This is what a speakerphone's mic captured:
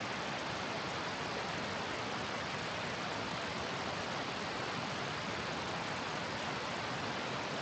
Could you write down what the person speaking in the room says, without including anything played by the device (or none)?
none